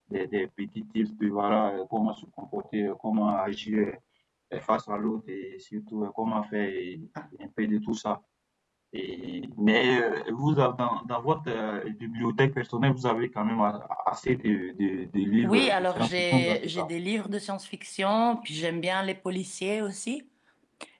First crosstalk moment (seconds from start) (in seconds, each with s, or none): 15.4 s